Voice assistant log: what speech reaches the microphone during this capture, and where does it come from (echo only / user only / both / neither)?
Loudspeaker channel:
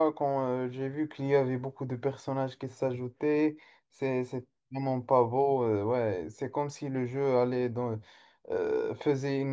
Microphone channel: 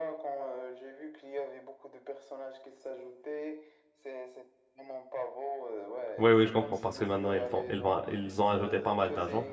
both